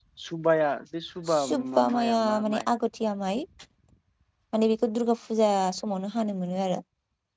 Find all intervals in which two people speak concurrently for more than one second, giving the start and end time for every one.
1.3-2.6

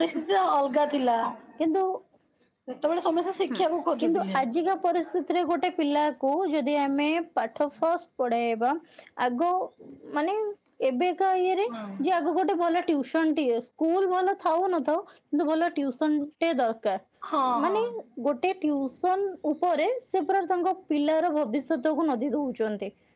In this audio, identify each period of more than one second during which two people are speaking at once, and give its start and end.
none

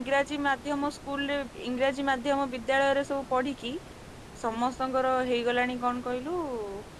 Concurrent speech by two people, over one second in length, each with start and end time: none

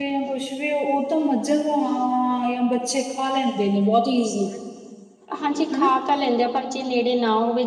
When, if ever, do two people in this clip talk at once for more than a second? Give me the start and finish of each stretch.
none

